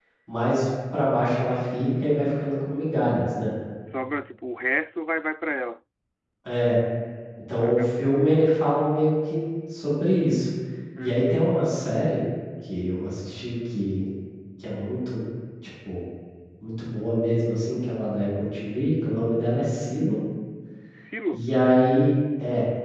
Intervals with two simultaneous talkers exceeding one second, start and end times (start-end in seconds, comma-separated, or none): none